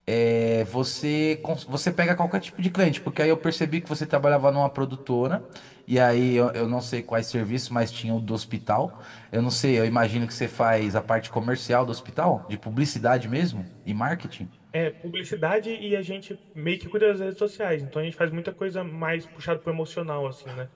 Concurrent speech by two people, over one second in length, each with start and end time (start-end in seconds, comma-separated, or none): none